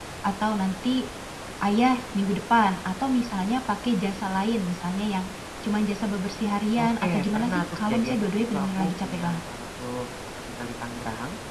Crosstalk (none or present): present